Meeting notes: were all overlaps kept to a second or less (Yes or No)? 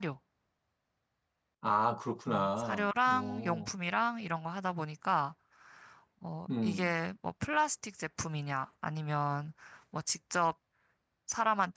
No